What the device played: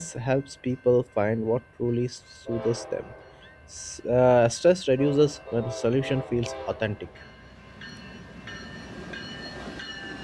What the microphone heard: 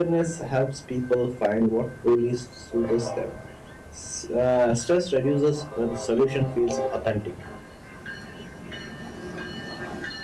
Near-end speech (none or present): none